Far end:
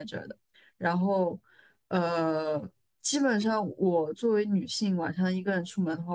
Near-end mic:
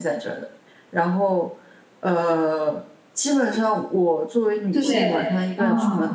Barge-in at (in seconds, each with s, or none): 4.7 s